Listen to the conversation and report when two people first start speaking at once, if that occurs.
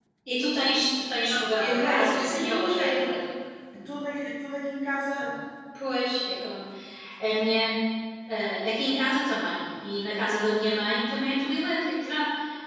1.6 s

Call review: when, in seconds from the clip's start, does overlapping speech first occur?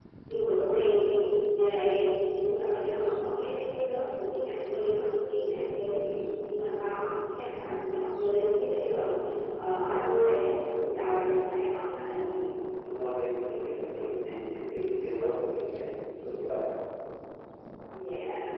none

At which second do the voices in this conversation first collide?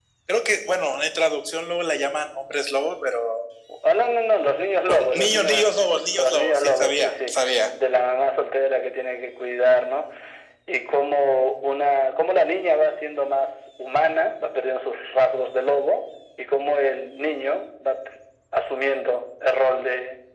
4.9 s

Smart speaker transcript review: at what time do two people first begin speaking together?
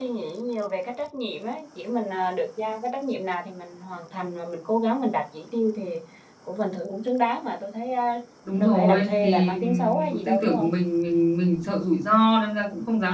8.6 s

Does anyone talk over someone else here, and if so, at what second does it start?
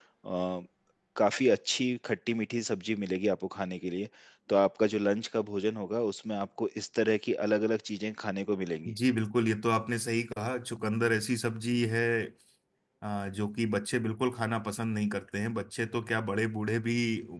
none

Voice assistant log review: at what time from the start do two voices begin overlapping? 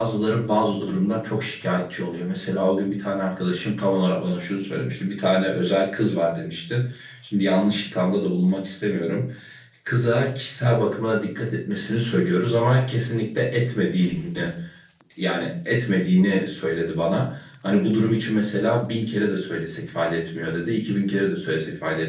none

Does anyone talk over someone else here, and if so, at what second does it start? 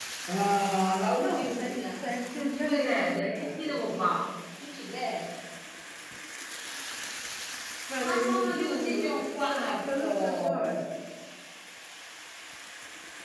1.2 s

